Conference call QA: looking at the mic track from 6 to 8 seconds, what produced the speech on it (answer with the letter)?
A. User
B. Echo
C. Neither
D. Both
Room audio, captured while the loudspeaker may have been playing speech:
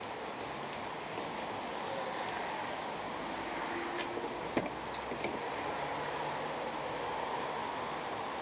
C